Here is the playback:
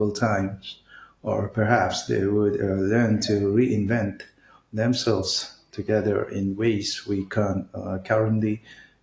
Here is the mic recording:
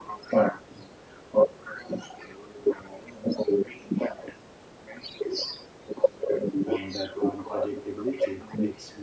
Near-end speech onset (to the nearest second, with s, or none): 7 s